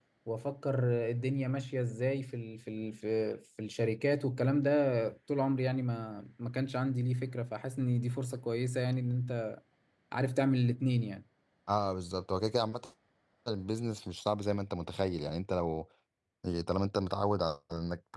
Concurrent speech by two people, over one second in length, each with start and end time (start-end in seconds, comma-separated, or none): none